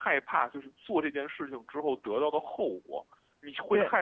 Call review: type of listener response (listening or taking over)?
listening